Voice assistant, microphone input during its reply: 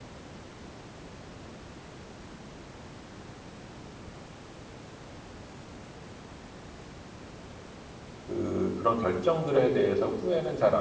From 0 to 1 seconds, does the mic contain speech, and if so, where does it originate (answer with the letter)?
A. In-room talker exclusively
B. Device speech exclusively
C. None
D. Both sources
C